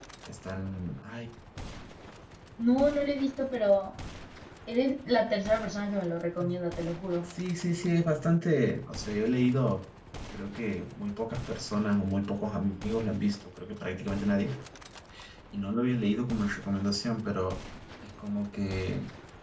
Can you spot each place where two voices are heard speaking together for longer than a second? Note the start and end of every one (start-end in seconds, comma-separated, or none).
none